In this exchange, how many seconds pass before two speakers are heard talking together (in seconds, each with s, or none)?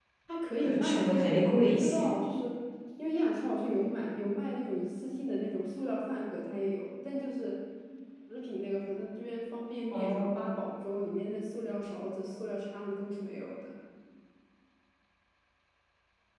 0.6 s